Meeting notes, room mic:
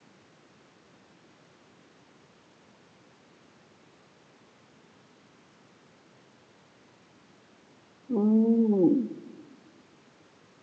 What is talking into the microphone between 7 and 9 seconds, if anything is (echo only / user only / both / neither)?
user only